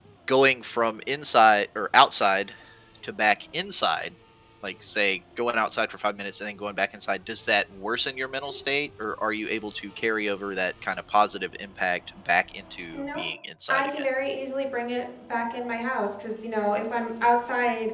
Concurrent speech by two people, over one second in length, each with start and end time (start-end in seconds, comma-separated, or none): none